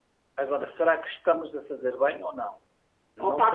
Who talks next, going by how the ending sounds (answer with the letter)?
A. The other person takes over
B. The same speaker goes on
A